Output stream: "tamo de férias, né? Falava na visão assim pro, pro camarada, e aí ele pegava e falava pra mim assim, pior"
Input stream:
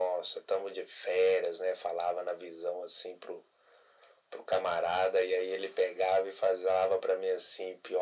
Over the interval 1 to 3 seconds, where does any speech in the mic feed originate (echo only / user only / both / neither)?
echo only